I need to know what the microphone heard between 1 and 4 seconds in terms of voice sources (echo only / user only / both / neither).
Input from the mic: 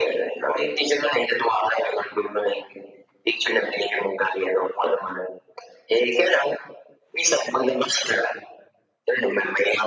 echo only